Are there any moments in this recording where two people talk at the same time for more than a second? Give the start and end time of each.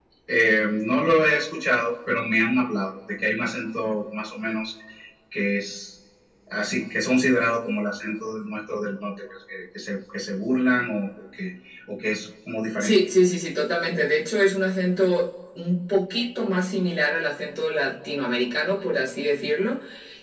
none

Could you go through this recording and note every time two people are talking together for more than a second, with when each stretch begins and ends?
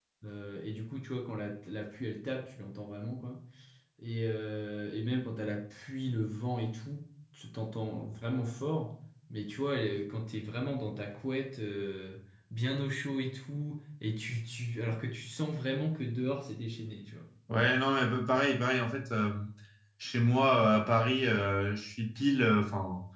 none

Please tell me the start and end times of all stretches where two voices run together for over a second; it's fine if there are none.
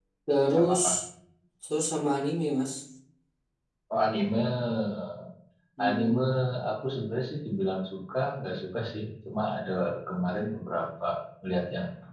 none

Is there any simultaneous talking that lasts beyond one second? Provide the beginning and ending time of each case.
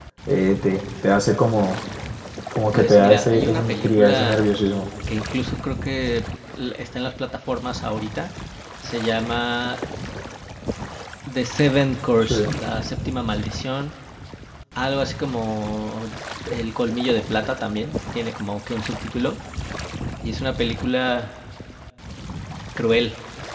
2.7-4.4

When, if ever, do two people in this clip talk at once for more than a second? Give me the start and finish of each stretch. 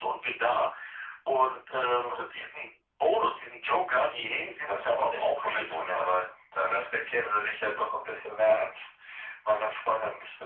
4.7-6.1

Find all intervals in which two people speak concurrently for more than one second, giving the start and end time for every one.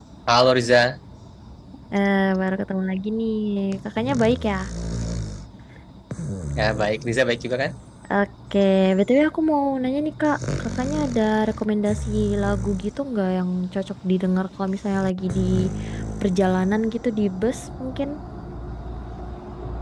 none

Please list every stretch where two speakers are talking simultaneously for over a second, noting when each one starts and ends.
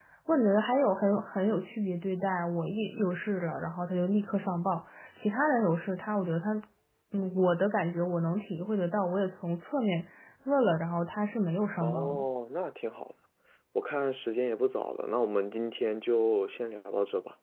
none

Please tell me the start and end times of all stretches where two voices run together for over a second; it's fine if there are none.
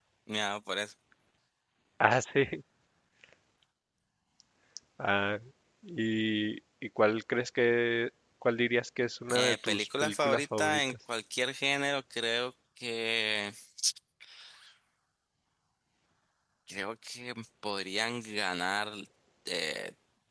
9.3-10.9

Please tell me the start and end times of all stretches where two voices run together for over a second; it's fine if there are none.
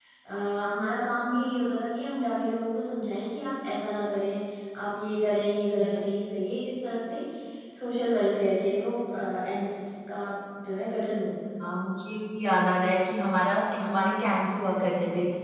none

